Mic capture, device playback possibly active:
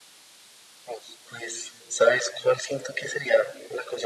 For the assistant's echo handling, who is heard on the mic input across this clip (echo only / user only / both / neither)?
echo only